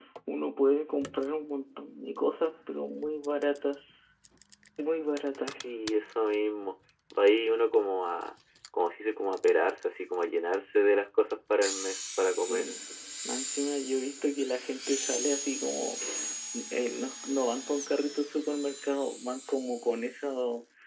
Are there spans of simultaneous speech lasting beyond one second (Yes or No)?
No